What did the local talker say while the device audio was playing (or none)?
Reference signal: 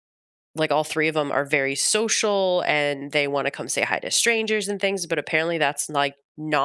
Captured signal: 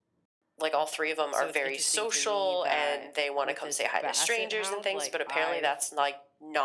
so it's interesting to me that with this basset hound, like I've